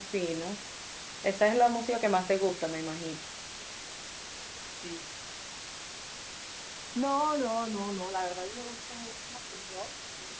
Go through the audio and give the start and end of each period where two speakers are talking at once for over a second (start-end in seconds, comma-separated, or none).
none